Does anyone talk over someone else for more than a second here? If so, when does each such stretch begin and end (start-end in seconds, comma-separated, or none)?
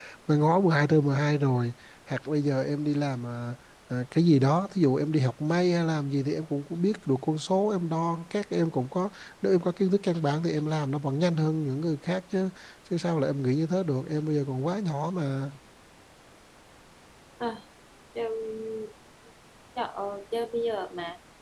none